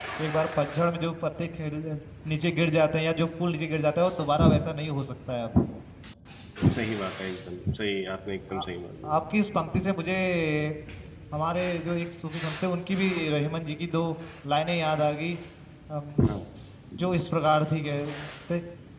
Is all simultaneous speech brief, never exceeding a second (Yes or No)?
Yes